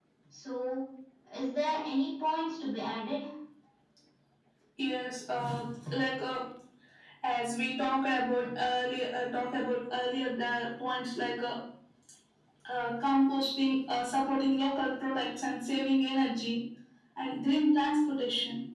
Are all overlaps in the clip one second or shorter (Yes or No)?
Yes